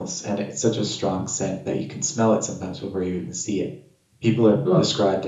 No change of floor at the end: Yes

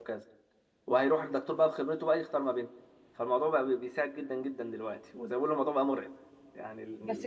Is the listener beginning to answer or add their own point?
Yes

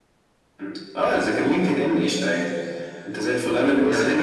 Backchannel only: No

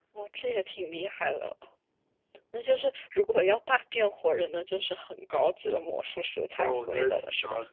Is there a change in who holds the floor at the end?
Yes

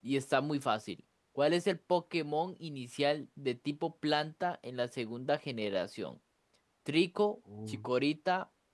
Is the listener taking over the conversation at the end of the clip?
No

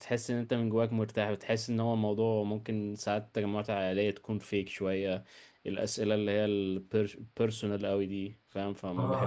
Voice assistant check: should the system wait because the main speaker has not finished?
No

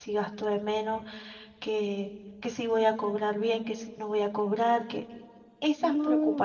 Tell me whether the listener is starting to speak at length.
No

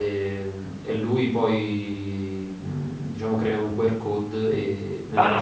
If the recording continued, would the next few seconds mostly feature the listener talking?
Yes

